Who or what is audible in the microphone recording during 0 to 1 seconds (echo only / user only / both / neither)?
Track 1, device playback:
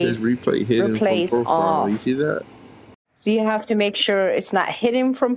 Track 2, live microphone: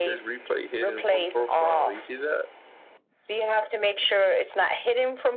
echo only